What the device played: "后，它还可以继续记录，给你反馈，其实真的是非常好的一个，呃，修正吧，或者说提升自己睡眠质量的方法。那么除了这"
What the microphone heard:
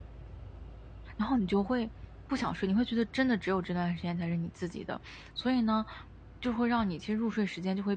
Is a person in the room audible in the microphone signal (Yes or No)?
Yes